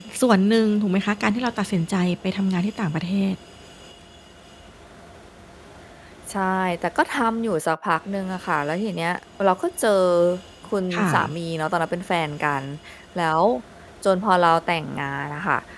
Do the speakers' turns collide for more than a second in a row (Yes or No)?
No